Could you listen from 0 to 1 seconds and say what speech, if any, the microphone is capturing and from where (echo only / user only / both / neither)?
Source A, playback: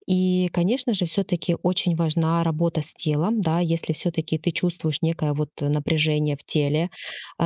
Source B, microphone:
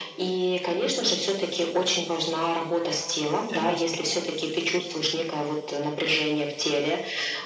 echo only